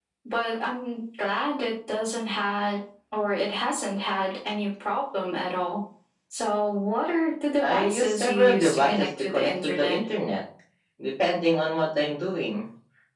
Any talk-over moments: Yes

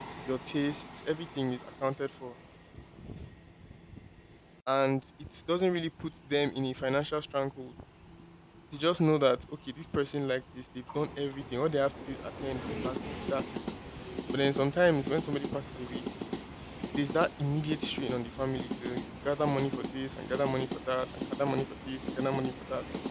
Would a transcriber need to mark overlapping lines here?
No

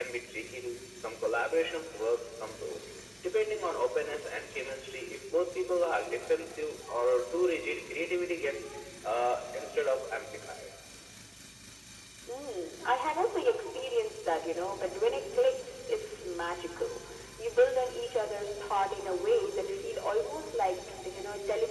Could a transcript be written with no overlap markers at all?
Yes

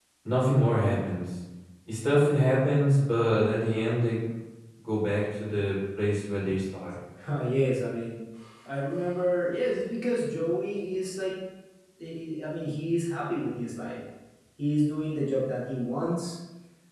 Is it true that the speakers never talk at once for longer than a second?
Yes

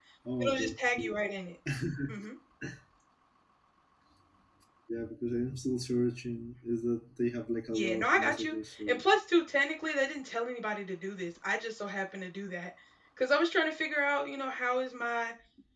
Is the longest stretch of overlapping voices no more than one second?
No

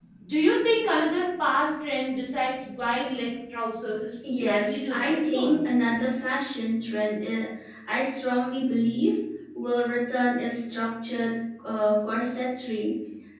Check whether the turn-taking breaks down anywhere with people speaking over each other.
Yes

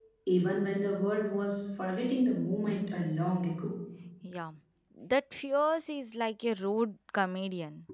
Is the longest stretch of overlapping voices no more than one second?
Yes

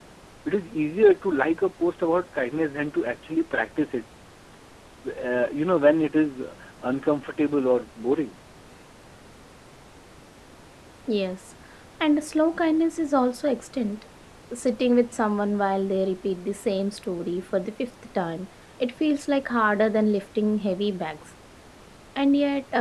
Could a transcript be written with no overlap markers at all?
Yes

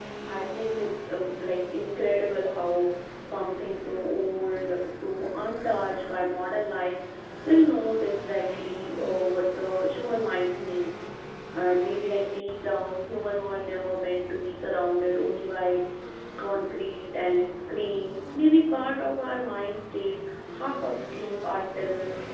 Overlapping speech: No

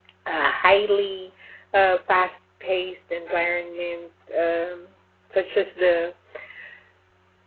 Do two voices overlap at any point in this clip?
No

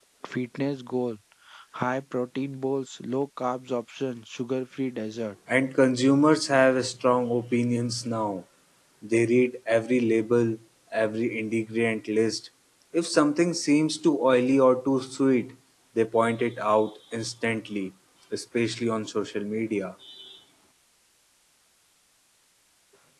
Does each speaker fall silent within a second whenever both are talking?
Yes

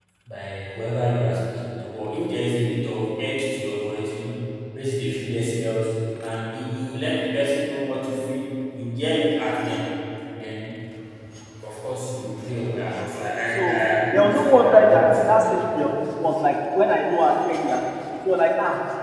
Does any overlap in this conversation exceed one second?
Yes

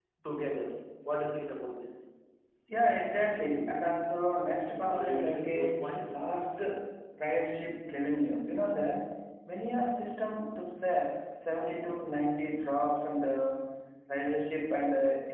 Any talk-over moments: Yes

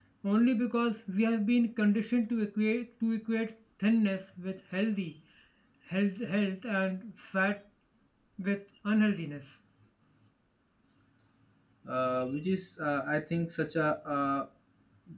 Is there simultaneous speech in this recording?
No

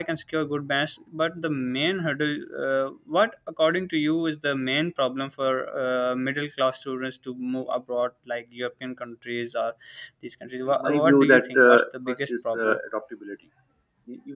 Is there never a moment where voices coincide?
No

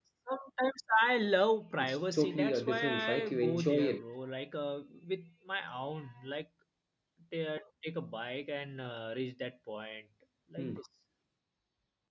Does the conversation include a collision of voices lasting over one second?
Yes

